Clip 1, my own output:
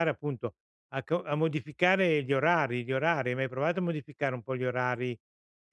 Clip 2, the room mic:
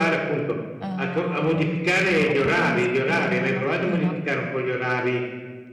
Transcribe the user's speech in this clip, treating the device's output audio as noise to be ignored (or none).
Uhm, ho problemi a svegliarmi la mattina.